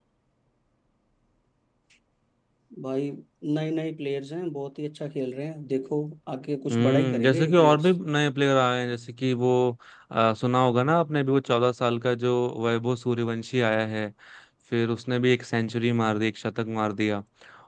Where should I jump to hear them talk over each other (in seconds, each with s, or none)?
6.7 s